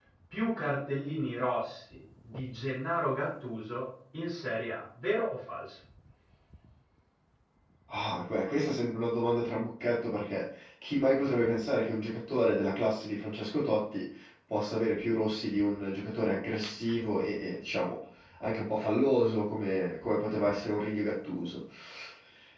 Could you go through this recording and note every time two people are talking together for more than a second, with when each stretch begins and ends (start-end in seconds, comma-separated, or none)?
none